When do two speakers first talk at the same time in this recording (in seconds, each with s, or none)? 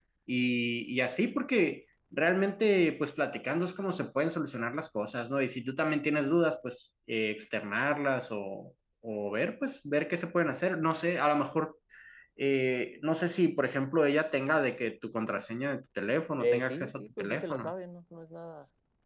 16.4 s